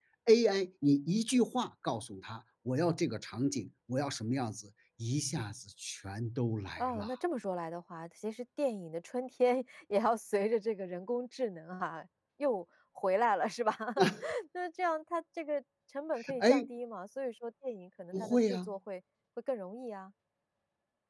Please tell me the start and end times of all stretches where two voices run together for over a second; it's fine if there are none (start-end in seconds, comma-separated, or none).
none